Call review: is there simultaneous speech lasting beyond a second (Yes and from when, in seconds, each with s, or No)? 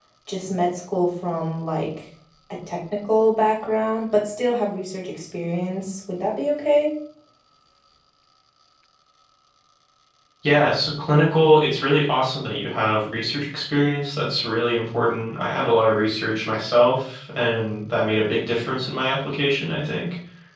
No